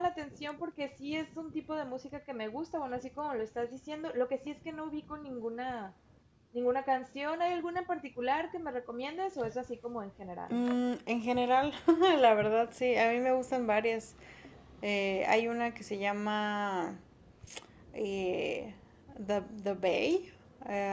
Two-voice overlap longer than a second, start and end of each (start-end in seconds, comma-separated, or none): none